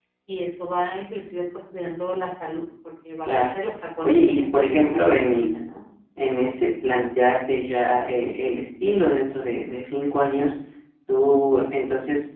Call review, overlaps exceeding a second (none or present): present